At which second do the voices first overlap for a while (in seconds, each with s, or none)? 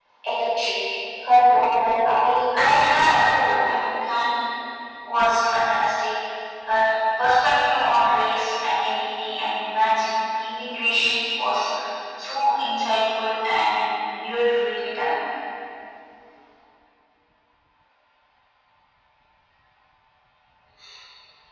2.6 s